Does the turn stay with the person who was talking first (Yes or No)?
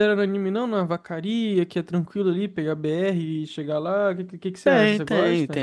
No